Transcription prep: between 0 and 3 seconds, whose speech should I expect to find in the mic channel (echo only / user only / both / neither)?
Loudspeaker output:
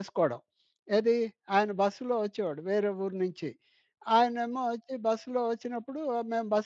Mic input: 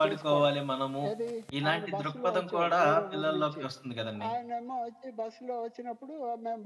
both